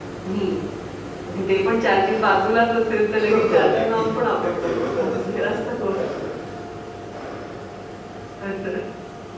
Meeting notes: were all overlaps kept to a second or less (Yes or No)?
No